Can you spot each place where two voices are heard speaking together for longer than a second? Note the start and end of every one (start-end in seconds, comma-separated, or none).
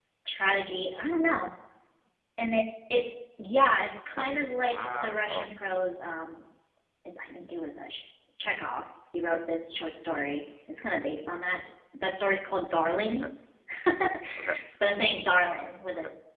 4.2-5.5